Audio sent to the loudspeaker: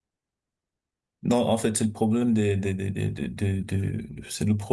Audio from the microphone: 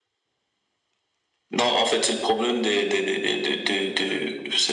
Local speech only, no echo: none

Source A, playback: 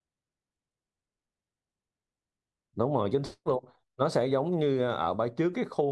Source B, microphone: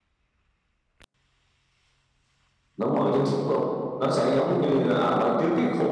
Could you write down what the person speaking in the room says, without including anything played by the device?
none

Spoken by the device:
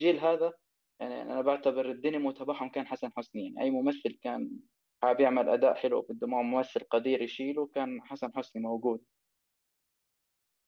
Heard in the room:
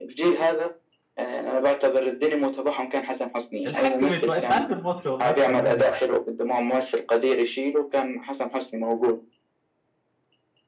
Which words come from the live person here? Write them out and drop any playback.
الحاج متولي انت عارف المصري والله اكتر مني

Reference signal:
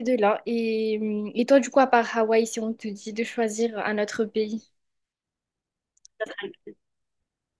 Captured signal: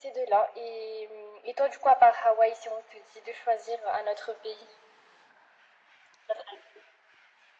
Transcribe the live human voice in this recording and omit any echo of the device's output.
none

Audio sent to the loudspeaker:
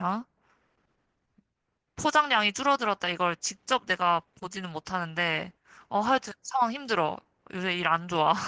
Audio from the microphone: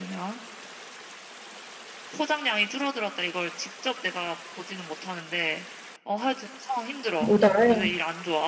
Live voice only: 뭐, 나야,

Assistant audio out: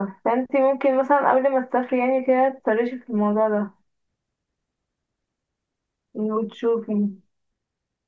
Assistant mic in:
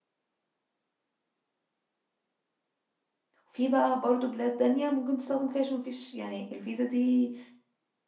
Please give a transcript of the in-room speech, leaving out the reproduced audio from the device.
وفي بقى برضو بلاد تانية ممكن تستخدم كاش ومفيش يعني الفيزا دي

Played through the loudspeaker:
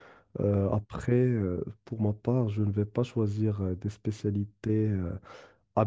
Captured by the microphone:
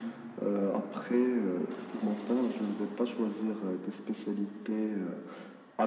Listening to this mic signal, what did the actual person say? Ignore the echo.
none

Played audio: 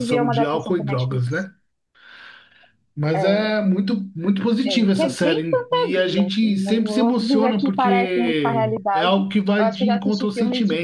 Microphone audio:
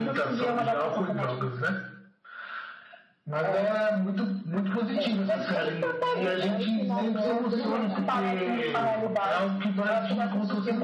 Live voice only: é, ela é um spin-off do Breaking Bad.

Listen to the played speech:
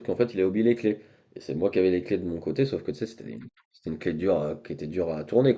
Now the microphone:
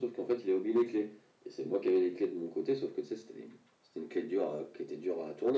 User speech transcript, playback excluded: none

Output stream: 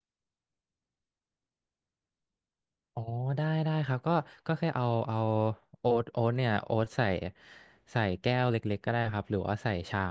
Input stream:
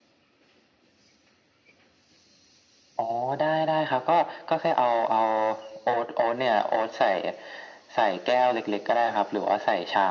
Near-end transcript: none

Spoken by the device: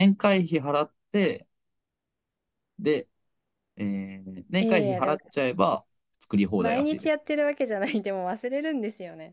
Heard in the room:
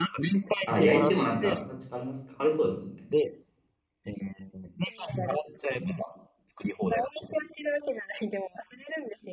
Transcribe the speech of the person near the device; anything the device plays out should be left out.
あ、焼いてもなんか形変わります。変わりそうですもんね。

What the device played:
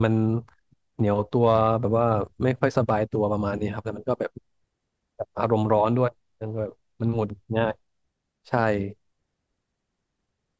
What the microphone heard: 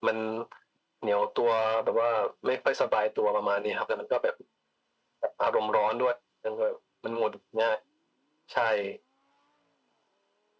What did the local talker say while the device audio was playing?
none

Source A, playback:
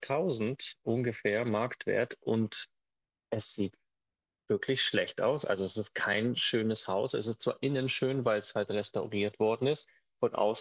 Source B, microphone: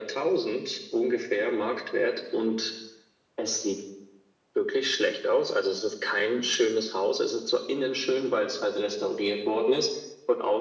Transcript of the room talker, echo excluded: none

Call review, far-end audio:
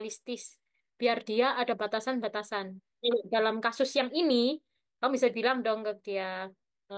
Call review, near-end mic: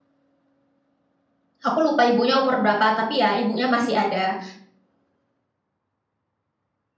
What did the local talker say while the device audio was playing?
aku lupa ibunya umur berapa, tapi ya ibunya masih ada.

